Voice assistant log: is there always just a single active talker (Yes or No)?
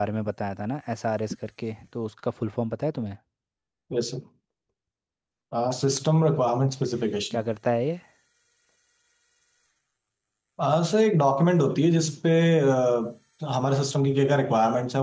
Yes